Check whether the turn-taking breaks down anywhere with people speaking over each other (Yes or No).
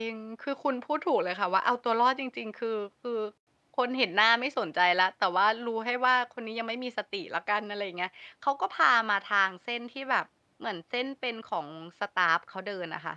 No